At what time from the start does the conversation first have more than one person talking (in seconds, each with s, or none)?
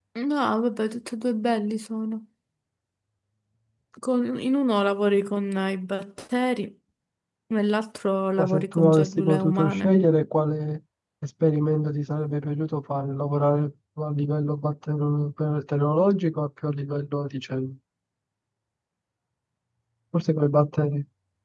8.4 s